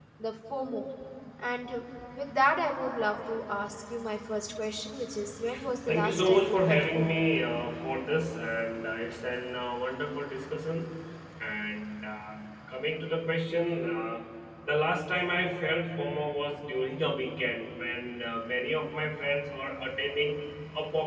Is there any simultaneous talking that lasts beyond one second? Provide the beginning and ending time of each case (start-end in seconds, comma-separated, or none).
5.9-7.2